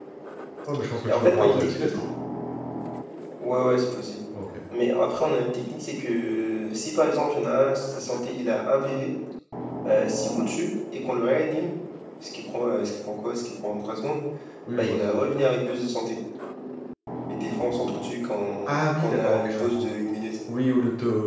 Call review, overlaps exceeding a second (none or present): present